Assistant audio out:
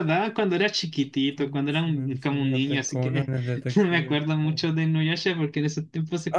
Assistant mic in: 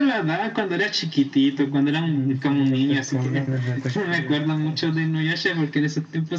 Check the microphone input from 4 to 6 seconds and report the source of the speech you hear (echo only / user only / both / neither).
echo only